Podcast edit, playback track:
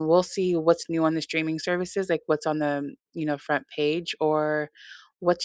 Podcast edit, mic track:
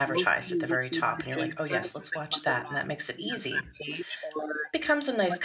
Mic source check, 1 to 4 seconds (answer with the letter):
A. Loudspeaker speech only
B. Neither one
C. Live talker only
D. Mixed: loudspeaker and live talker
D